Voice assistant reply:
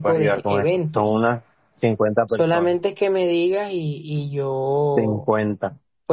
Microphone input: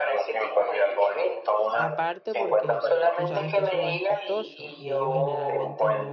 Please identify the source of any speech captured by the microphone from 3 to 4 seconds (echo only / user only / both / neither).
both